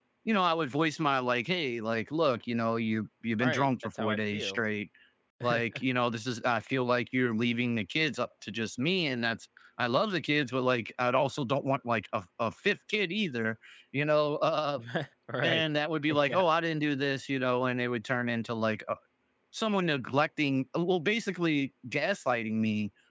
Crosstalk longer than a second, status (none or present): present